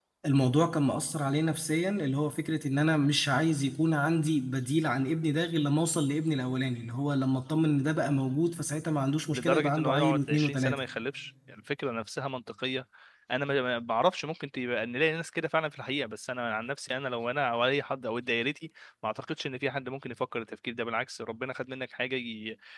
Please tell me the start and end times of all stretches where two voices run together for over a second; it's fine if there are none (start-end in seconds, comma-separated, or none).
9.3-10.8